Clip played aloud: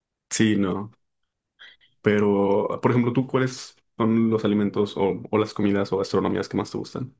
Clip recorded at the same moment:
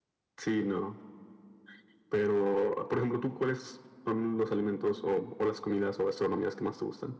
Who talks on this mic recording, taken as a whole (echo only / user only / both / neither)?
echo only